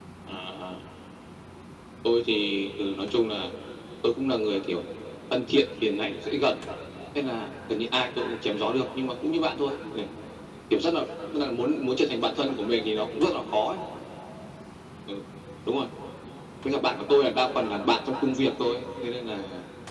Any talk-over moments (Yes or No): No